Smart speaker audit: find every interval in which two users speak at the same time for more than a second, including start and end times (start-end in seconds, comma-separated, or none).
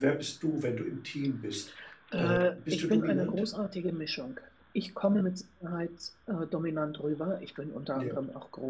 2.1-3.4